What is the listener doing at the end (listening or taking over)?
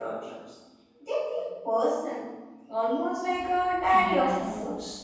taking over